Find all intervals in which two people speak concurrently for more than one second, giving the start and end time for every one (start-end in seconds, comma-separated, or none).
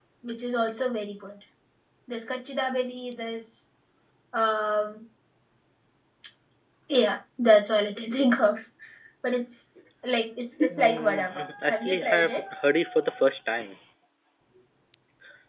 10.7-12.4